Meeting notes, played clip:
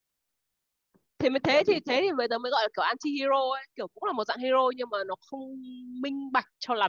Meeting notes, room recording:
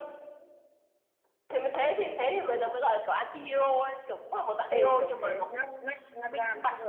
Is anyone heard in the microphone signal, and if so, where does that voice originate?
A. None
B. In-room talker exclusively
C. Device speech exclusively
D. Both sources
D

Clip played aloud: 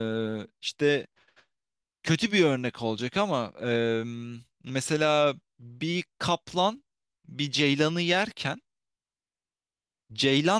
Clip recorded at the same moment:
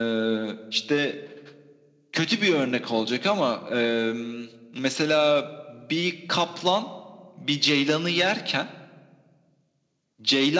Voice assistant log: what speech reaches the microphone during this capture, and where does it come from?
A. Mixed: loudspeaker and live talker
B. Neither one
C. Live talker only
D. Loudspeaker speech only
D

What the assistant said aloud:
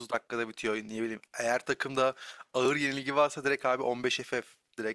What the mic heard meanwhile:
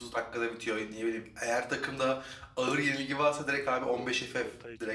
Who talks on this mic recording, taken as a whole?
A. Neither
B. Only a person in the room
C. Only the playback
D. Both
D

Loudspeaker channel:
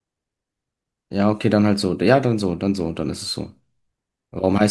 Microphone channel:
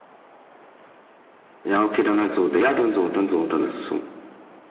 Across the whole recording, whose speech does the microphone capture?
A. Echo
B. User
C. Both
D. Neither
A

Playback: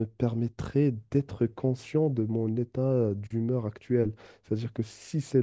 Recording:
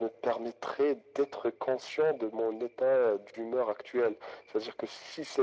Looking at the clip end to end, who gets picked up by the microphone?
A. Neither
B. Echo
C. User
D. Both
B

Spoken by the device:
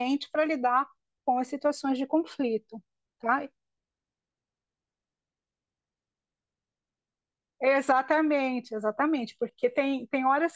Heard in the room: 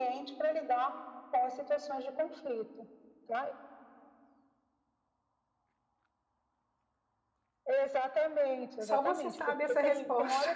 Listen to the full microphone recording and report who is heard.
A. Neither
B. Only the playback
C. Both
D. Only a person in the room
C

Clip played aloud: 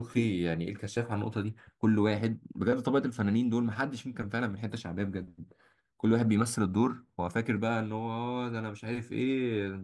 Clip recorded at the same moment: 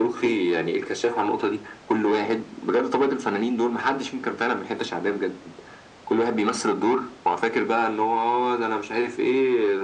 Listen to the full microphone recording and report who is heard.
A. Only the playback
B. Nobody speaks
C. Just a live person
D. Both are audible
A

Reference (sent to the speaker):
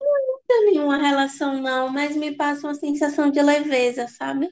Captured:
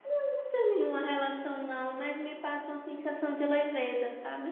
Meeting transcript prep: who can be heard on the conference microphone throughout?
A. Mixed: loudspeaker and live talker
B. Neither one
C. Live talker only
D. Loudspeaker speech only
D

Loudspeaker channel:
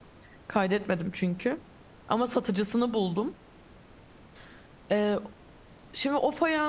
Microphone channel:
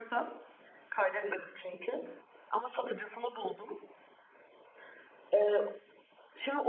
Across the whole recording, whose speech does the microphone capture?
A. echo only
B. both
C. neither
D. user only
A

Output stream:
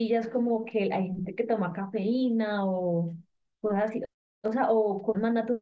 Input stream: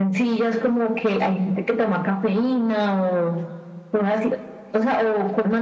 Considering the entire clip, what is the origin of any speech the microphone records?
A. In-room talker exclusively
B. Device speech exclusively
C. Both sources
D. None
B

